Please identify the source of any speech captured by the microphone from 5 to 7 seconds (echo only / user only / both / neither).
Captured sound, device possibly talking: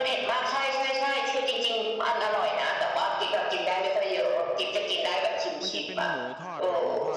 both